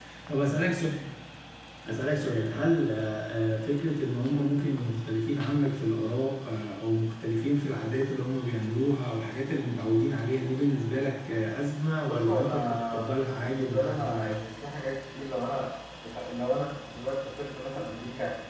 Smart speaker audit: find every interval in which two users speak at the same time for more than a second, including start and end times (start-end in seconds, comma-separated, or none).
12.0-14.5